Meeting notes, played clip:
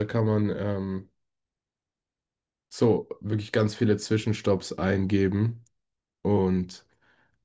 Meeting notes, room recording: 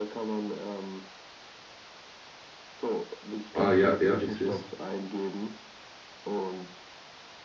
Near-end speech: present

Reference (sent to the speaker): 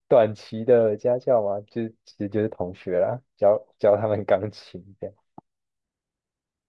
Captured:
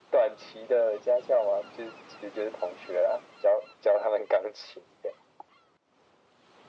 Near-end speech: none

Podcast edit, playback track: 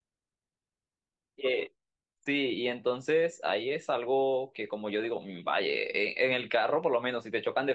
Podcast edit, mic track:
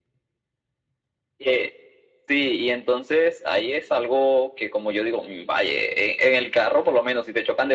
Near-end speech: none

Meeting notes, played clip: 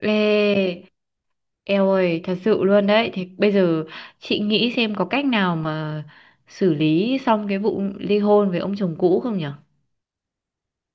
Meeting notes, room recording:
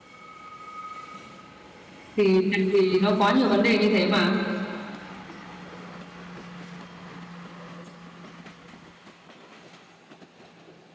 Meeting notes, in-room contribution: present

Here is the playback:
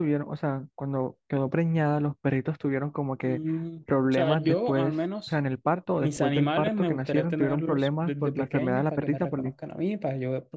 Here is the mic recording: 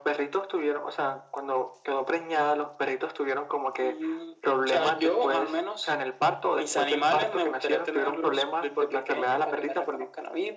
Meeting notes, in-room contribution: none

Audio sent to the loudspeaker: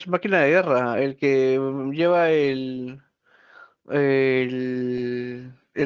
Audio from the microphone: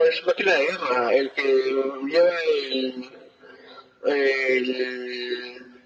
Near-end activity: none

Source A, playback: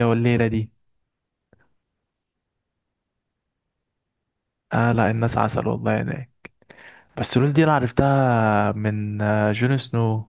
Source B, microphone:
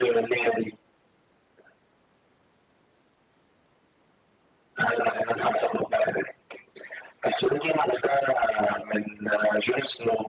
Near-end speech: none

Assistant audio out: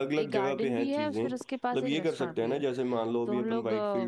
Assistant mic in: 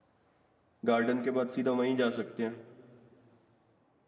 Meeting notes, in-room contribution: present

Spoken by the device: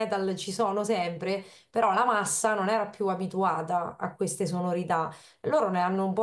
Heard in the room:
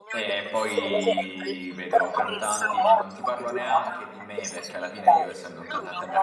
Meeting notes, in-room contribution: present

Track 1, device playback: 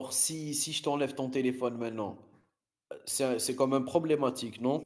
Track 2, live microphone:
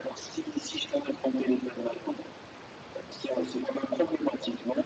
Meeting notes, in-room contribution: none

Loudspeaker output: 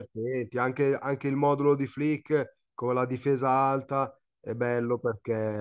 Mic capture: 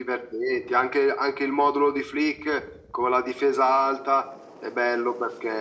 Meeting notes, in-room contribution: none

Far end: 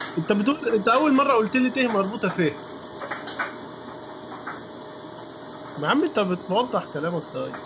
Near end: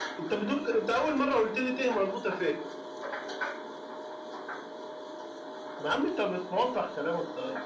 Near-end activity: none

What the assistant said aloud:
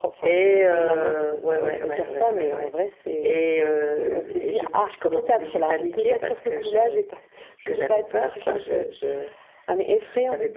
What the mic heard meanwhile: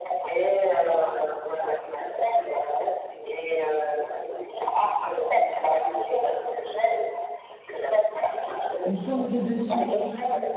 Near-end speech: present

